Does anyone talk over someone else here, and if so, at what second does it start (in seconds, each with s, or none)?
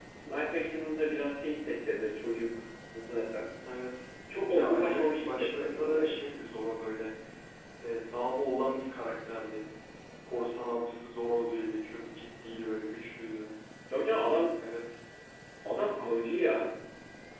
4.5 s